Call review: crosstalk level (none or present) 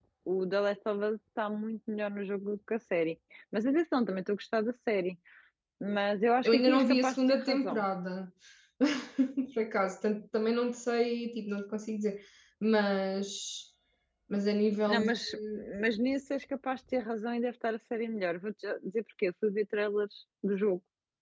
present